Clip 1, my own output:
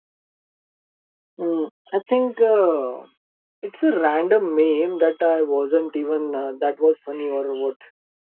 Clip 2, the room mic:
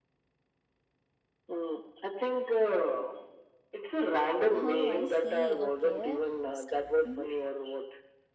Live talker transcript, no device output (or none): Oh, I see. Okay. So, mhm.